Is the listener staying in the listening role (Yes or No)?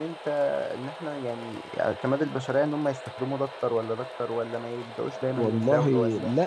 No